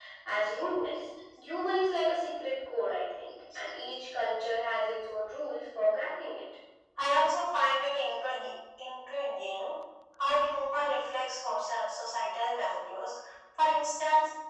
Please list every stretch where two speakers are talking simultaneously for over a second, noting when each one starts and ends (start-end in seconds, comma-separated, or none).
none